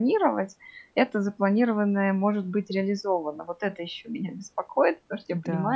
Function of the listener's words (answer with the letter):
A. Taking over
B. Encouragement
B